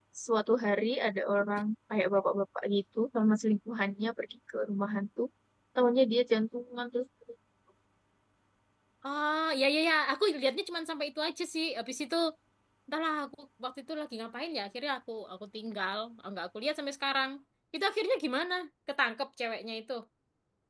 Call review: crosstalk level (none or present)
none